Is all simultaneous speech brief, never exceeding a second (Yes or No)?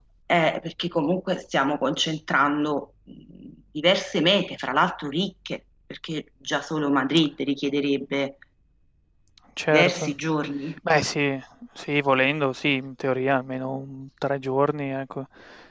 Yes